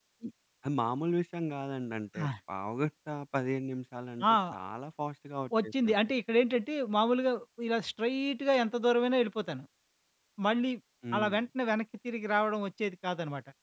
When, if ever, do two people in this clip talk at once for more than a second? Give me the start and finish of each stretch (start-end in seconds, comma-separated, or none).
none